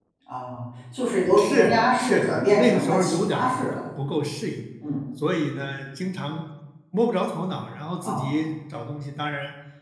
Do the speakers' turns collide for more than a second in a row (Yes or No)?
Yes